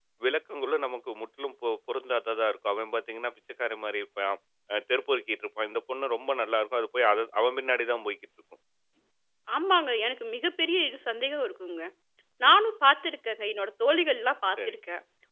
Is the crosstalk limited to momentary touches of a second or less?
Yes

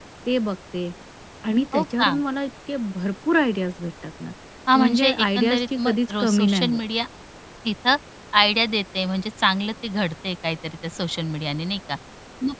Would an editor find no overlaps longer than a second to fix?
No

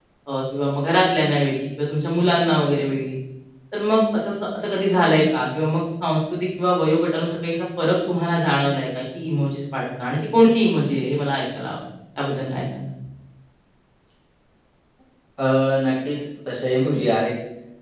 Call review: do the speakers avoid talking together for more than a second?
Yes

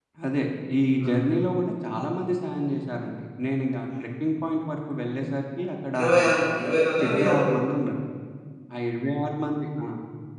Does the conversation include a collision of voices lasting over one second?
No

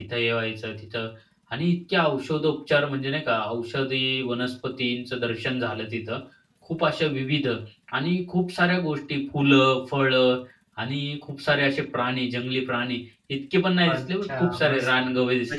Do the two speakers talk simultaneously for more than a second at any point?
Yes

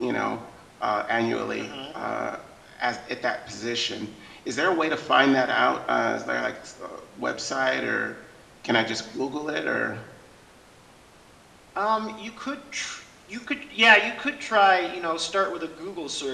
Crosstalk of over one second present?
No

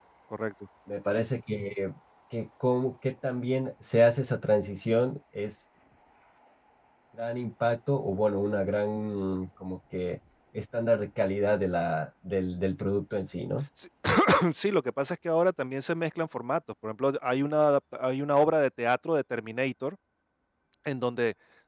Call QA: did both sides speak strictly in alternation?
Yes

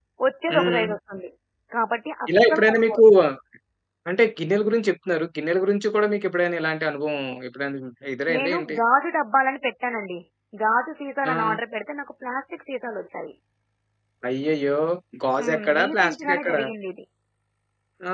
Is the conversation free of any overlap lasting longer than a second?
No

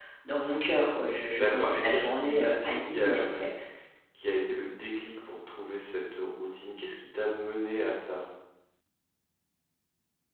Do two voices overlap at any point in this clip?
Yes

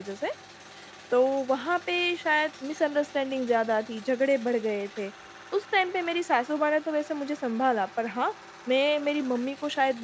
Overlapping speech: No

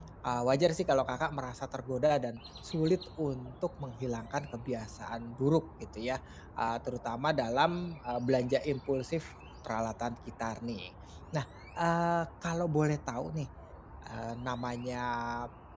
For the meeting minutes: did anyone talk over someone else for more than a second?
No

